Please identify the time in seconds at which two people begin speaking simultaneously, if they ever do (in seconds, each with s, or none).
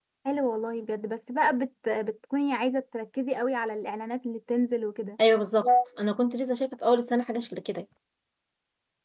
none